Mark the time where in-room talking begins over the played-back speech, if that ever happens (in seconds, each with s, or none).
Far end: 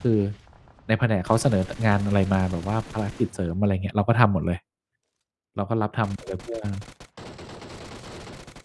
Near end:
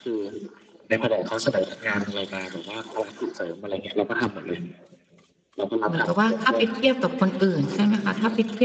5.9 s